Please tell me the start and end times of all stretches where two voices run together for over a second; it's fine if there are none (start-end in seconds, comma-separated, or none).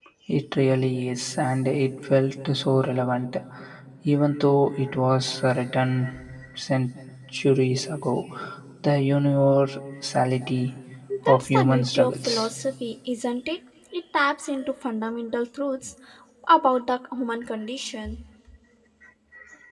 11.3-12.5